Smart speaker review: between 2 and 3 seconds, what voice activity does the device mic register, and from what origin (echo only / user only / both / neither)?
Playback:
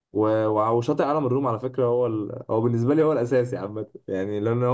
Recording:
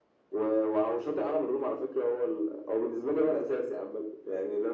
echo only